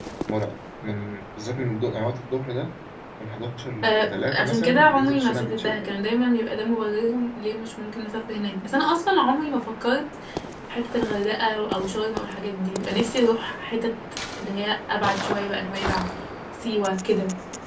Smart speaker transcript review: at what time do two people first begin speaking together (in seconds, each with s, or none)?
3.8 s